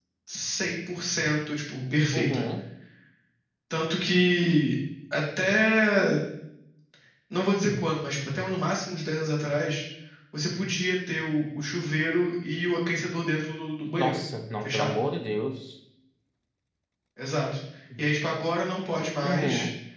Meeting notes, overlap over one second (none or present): none